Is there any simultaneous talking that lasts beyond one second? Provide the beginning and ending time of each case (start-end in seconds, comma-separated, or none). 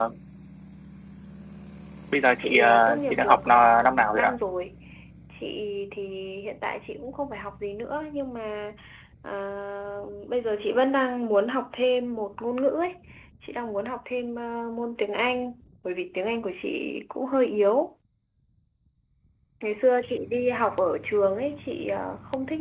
2.4-4.3